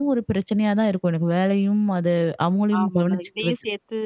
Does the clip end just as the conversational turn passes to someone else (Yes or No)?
Yes